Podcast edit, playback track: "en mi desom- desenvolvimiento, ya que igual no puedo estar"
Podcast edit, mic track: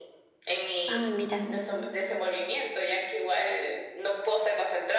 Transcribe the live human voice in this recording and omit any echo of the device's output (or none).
Ay, mira,